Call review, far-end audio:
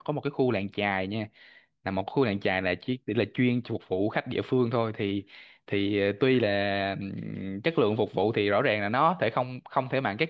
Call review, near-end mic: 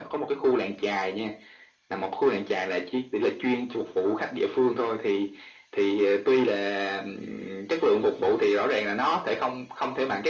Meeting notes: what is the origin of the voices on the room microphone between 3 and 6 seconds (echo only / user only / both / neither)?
echo only